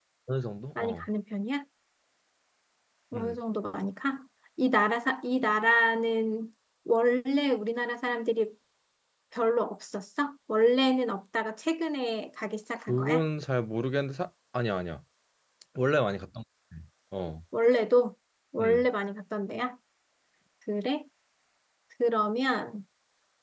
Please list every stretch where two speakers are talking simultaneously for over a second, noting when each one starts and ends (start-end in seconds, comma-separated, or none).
none